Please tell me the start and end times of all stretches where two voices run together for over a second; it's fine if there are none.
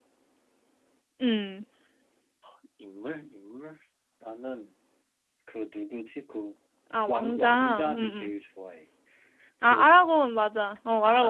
7.1-8.3

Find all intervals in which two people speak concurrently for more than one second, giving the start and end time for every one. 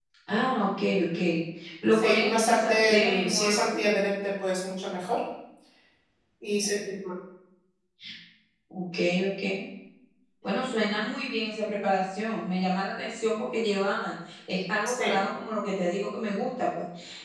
1.9-3.8

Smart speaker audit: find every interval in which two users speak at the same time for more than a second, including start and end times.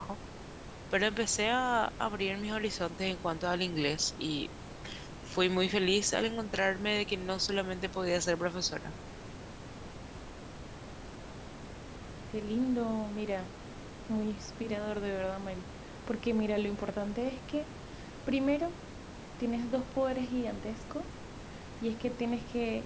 none

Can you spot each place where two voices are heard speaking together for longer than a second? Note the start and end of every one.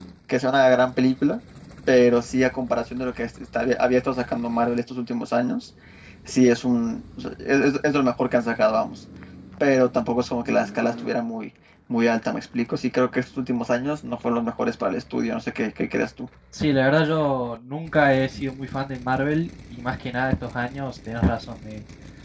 none

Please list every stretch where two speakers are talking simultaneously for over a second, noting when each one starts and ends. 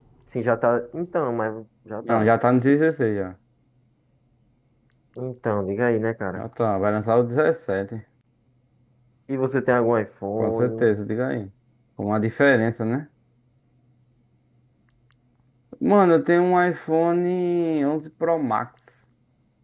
none

